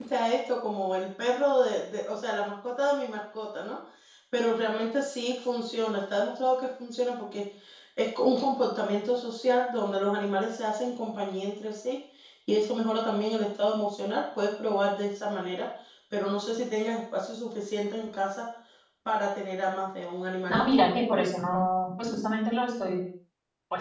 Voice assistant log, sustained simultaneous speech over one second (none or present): none